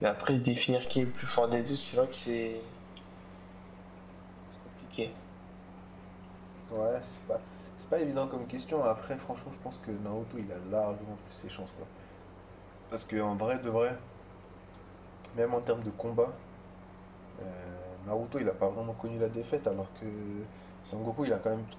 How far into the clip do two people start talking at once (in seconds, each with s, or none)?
none